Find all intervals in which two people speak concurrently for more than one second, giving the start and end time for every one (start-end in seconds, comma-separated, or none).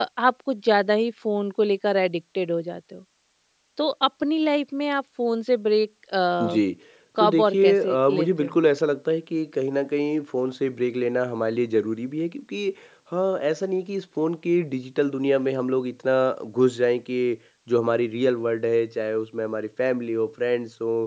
7.2-8.6